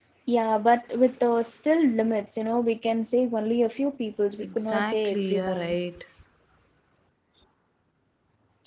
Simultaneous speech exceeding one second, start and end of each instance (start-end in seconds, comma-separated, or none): 4.4-5.8